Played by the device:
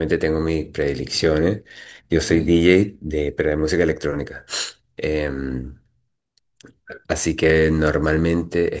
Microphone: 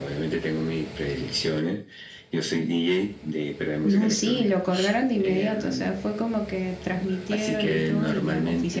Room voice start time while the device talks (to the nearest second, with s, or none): 4 s